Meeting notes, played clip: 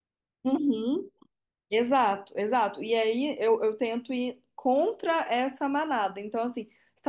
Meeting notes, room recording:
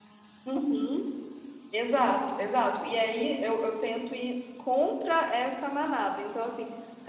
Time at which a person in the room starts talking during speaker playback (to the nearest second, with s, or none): none